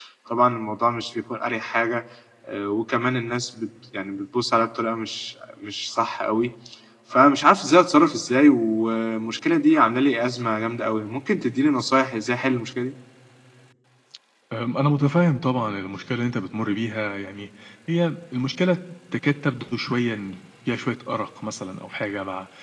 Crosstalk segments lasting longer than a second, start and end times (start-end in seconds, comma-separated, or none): none